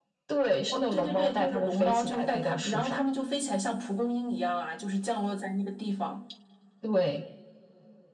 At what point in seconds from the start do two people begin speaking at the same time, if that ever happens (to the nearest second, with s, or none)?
1 s